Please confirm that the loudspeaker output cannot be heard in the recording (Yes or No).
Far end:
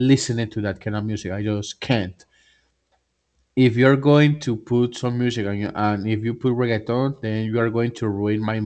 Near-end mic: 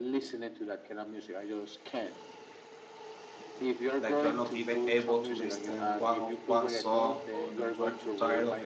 No